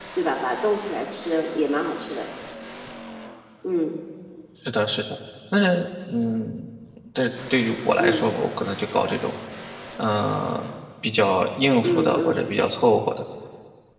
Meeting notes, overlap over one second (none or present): none